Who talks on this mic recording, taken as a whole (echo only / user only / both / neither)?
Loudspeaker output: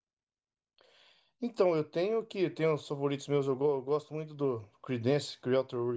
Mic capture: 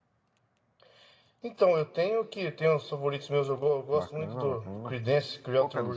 both